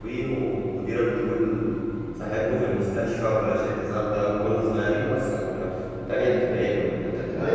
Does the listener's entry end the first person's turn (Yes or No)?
Yes